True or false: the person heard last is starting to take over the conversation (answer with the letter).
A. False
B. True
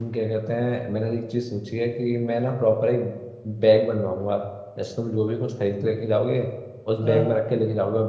A